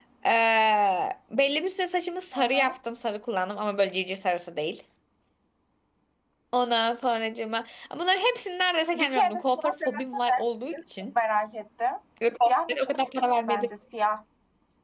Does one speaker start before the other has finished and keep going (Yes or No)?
Yes